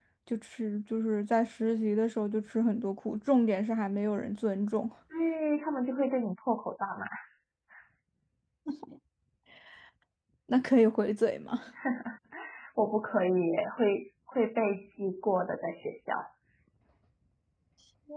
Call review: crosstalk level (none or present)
none